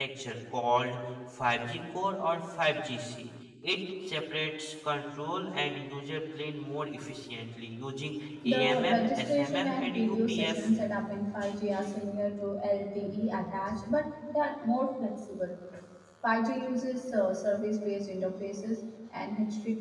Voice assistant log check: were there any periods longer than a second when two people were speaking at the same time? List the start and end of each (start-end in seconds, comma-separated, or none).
8.4-10.7